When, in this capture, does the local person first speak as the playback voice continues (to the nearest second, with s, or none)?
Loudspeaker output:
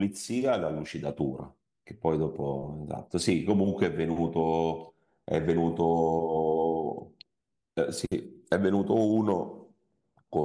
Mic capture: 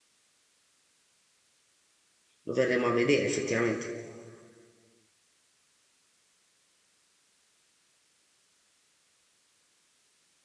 2 s